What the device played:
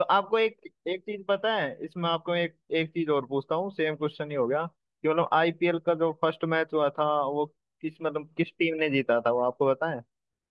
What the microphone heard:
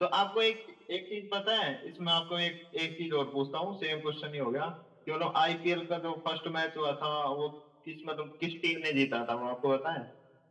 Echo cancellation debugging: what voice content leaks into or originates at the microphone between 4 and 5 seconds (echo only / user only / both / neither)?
echo only